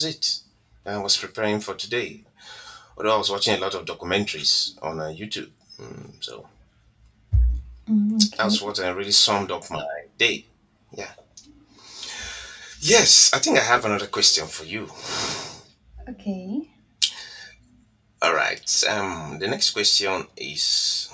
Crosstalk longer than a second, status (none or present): none